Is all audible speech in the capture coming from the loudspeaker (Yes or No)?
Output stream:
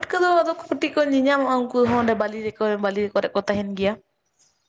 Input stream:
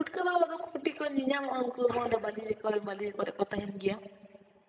Yes